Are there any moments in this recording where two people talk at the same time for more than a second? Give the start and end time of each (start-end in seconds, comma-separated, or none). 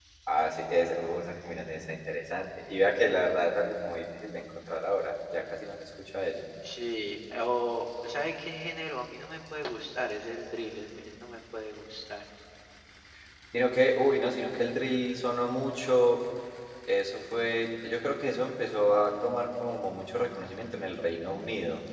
none